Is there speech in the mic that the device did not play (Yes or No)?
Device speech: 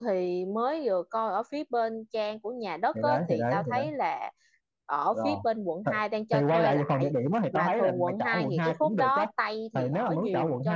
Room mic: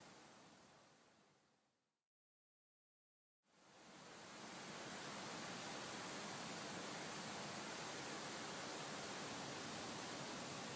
No